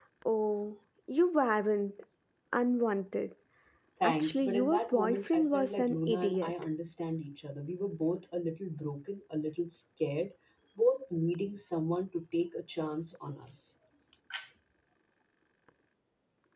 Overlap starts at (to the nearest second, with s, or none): 4 s